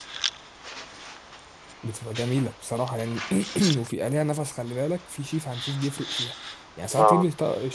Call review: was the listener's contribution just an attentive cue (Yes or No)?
Yes